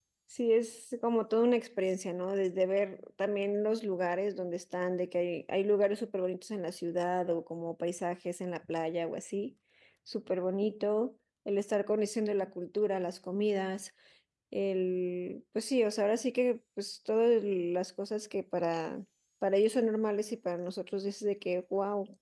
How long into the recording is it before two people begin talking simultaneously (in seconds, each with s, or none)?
none